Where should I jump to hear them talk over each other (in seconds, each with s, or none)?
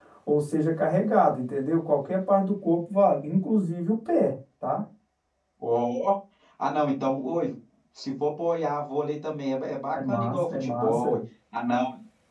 9.9 s